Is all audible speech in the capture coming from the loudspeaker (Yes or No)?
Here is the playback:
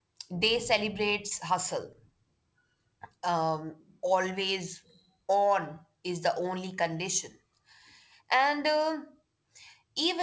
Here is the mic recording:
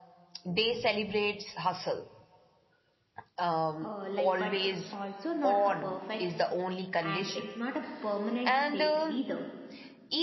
No